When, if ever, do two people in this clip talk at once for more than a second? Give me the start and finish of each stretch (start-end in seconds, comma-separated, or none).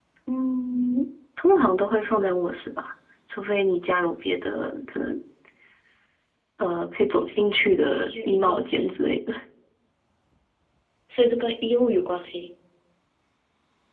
7.6-9.0